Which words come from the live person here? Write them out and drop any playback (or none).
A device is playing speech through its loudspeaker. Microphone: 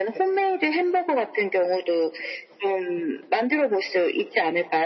none